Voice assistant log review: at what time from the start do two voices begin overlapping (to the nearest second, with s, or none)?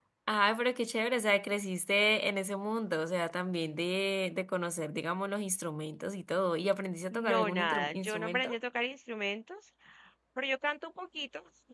7 s